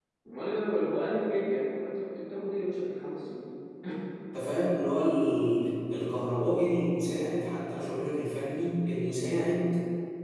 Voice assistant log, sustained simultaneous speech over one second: none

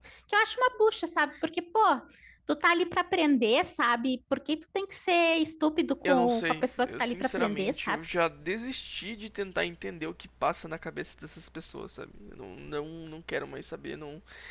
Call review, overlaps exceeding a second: present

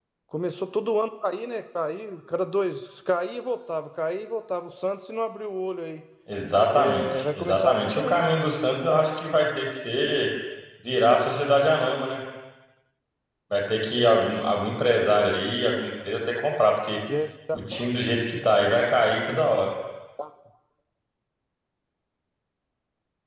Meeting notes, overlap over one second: present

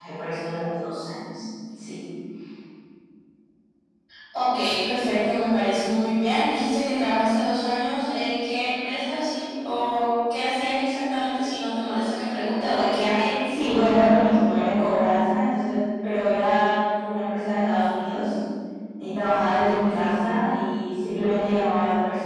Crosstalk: none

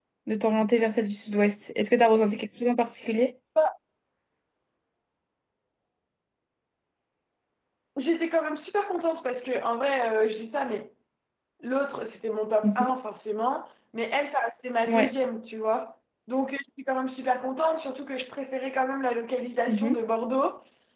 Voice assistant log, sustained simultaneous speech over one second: none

